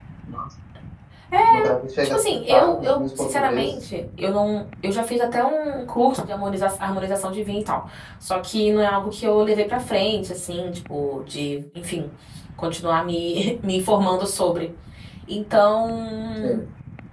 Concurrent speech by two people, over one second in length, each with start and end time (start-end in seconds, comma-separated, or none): 2.0-3.7